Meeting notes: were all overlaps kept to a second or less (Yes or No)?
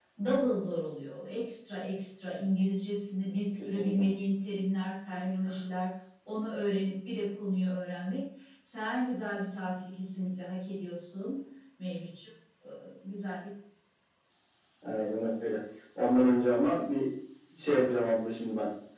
Yes